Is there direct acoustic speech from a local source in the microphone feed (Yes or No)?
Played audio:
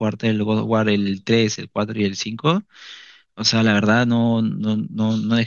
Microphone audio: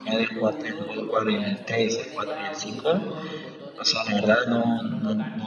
Yes